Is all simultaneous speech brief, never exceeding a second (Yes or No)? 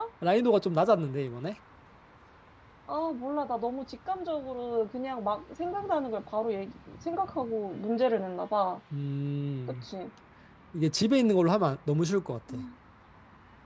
Yes